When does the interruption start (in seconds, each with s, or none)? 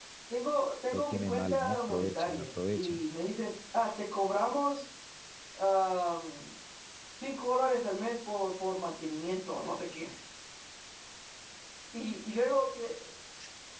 0.9 s